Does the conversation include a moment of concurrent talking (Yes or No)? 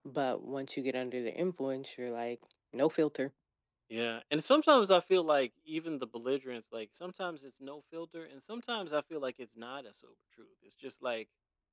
No